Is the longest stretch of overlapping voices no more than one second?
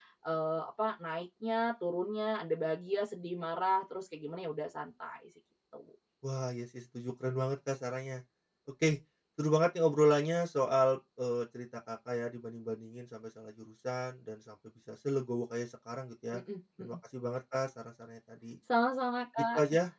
Yes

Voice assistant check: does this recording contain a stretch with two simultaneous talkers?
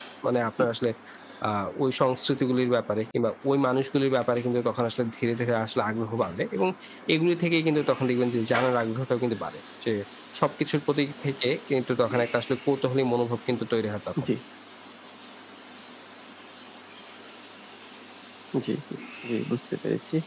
No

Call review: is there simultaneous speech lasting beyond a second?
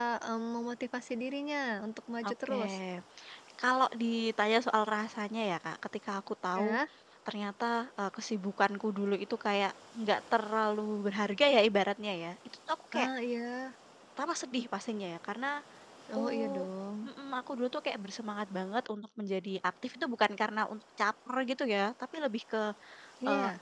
No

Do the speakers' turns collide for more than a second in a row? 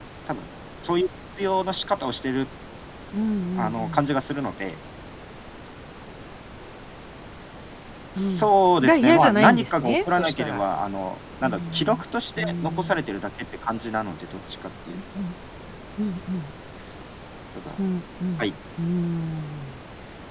Yes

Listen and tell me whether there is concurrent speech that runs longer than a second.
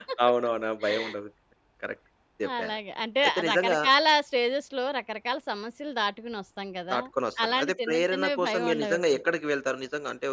Yes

